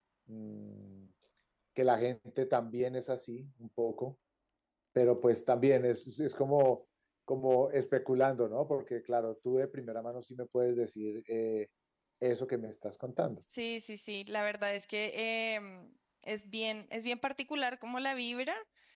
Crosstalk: none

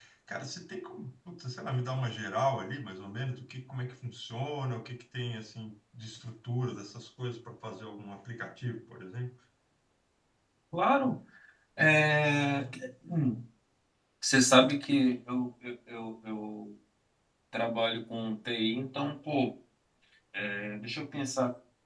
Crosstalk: none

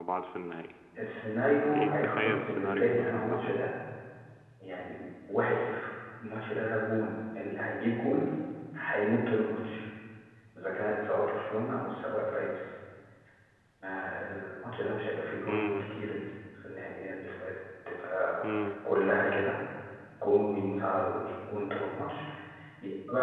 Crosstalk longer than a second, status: present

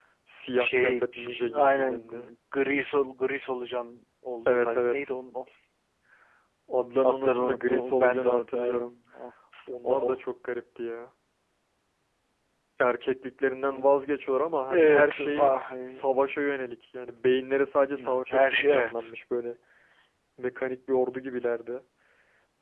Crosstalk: present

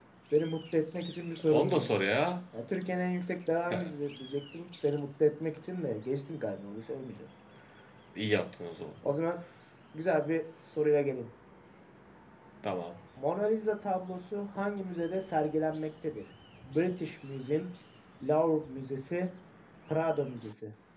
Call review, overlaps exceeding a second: none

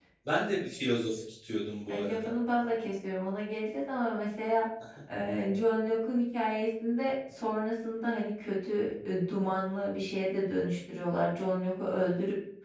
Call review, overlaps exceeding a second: none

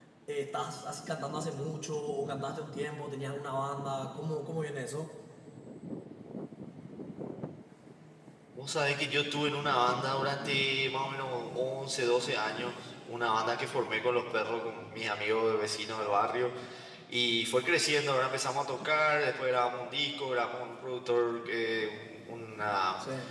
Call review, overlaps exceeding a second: none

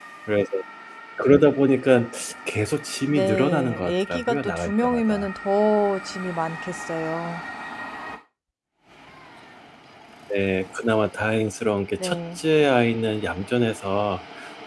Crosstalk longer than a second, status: present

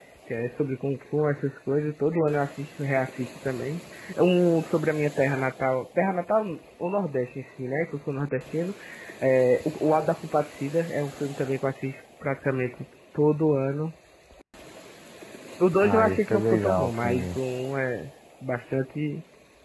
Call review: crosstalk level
present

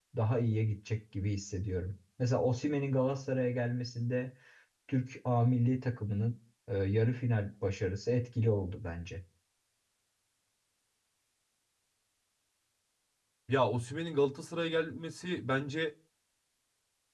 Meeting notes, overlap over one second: none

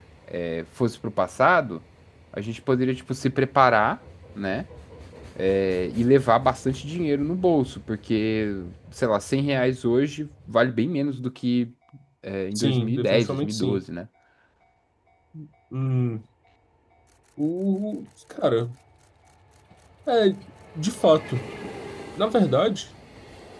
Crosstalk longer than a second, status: present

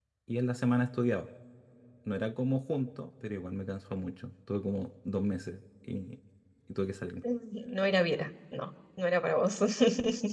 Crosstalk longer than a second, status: none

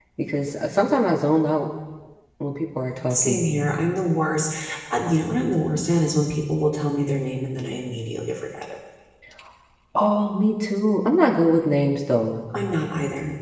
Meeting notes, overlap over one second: none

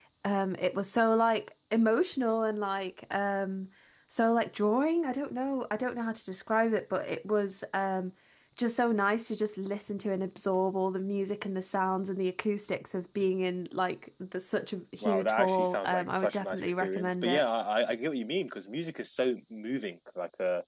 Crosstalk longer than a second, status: present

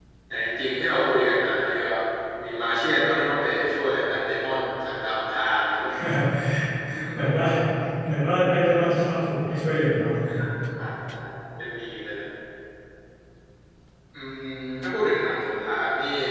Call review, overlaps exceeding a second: none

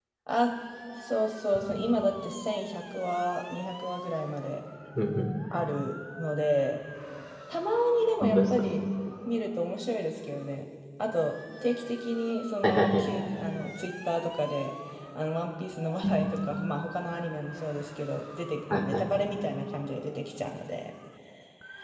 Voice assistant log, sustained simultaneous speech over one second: none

